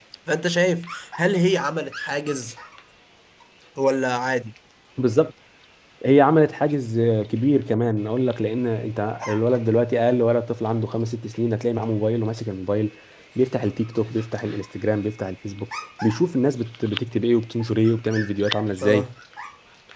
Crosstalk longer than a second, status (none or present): none